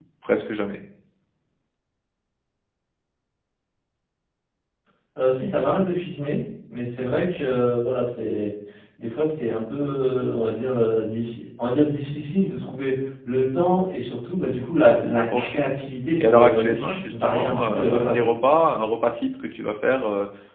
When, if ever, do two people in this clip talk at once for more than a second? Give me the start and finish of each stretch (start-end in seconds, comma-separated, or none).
16.2-18.3